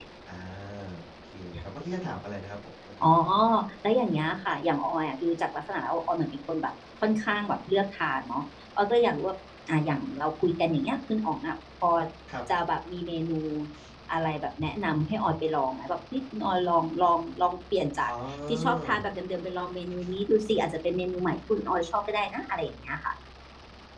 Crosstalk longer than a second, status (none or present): none